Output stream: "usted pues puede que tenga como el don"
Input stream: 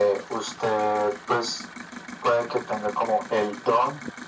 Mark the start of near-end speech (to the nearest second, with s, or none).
none